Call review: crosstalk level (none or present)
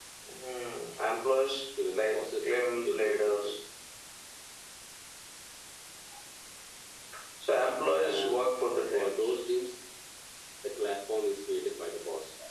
present